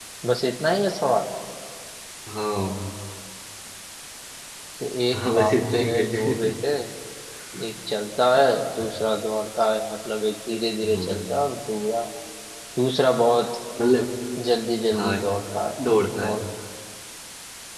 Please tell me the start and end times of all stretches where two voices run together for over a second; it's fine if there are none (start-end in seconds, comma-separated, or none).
5.1-6.4